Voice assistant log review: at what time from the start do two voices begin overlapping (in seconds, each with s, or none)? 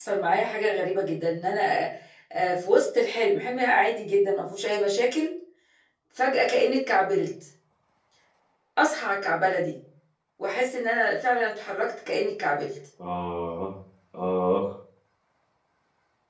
none